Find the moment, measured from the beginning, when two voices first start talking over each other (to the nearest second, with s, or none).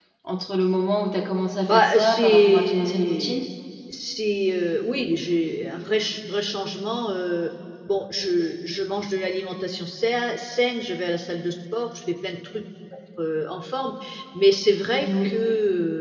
2 s